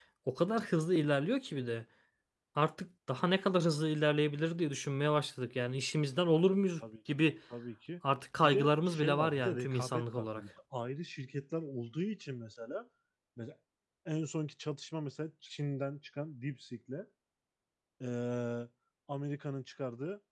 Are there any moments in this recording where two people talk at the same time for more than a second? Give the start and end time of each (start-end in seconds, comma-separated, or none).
8.4-10.4